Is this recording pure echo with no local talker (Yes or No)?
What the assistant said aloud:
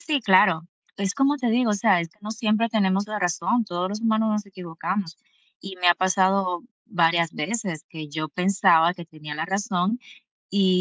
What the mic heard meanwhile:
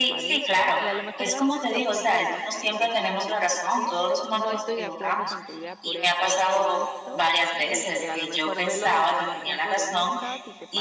No